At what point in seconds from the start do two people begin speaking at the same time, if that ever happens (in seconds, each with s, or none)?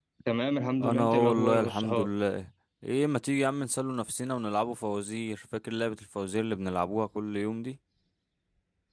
0.8 s